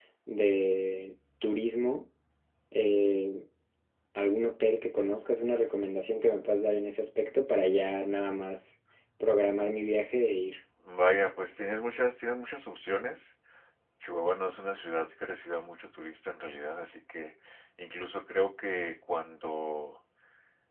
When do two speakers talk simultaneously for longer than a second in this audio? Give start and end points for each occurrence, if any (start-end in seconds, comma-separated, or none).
none